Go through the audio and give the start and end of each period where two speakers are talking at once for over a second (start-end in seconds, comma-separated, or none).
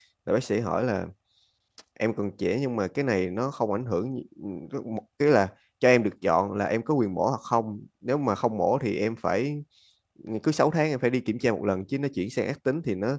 none